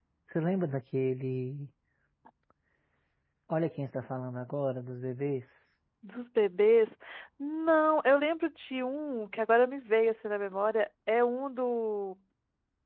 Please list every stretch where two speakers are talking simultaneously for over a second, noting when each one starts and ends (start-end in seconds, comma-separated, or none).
none